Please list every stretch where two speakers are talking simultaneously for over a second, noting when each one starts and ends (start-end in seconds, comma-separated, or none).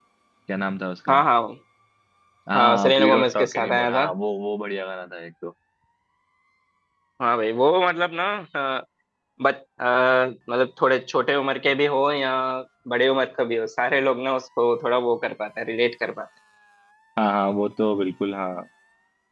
2.6-4.1